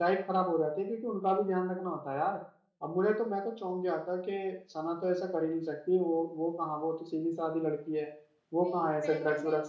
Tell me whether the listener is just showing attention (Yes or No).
No